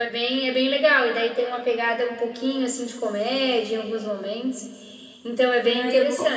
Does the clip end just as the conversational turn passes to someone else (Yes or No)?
Yes